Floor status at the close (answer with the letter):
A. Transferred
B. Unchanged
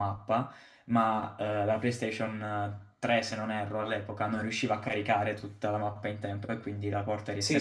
A